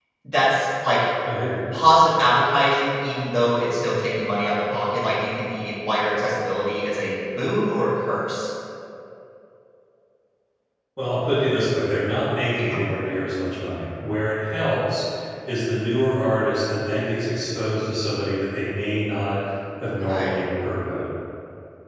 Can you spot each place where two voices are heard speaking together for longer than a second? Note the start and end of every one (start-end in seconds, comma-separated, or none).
none